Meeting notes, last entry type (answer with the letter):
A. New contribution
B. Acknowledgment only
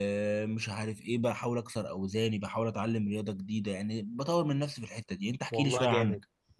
A